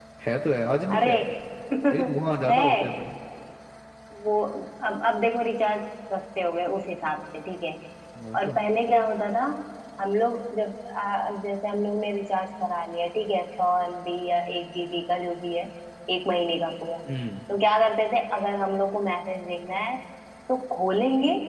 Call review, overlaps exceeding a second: none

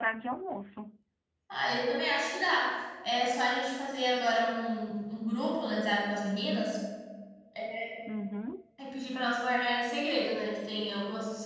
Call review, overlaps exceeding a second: none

